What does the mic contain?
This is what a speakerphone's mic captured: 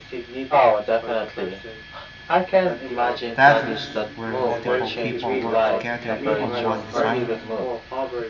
both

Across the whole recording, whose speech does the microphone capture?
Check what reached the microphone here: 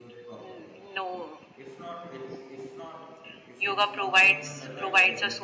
both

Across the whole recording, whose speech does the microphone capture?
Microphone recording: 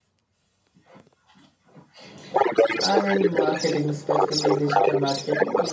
both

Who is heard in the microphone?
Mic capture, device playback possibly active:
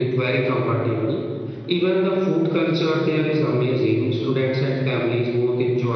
echo only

